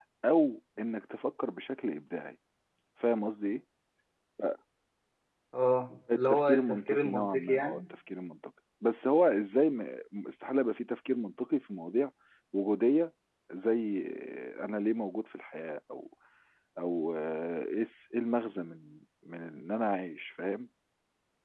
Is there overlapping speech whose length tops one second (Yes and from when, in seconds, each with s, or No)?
Yes, from 6.1 s